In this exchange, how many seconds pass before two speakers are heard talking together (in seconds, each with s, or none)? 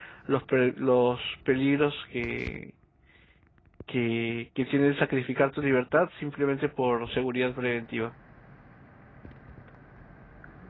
none